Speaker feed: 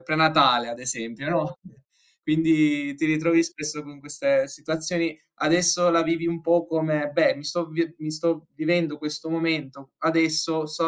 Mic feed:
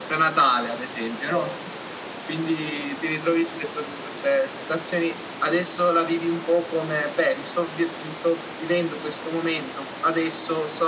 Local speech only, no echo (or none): none